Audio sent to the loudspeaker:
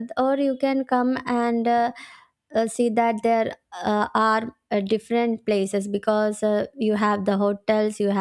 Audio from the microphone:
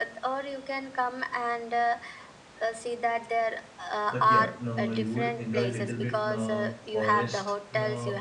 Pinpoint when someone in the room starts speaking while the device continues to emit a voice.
4 s

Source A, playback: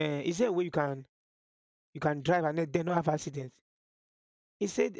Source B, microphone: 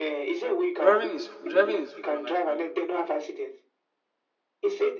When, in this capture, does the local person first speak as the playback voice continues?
1 s

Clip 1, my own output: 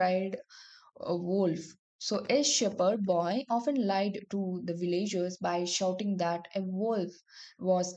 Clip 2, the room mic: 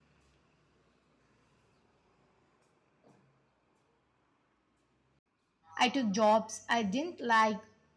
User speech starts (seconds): 6 s

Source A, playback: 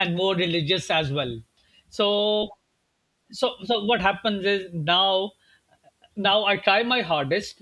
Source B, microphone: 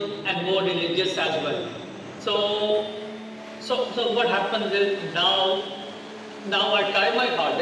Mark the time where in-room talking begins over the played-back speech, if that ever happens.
none

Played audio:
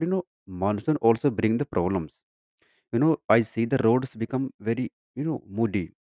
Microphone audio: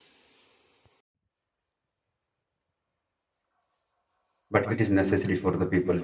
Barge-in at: 4 s

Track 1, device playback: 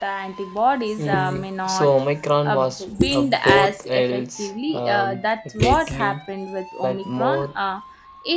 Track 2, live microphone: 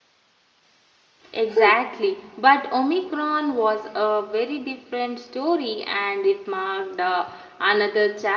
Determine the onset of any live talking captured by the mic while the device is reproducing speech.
1 s

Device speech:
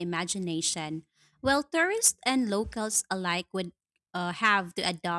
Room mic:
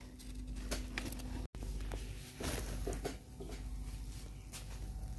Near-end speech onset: none

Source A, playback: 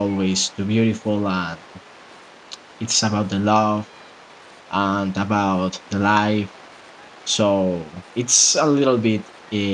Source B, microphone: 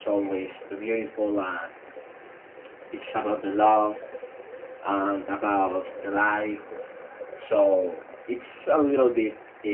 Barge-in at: none

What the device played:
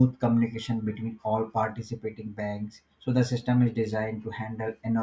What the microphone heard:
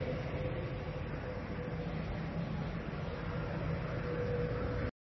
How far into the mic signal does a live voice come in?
none

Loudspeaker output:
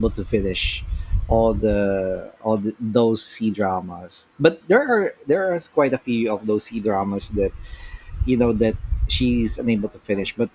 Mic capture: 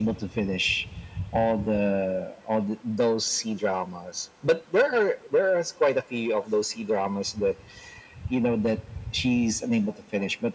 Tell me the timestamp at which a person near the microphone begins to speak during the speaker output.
none

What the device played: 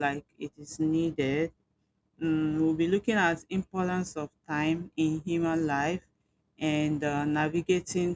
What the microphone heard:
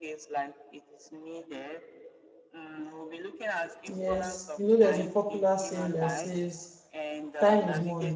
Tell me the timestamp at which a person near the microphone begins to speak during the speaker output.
4 s

